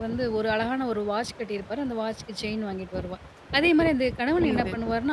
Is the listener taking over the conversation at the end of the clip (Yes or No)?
No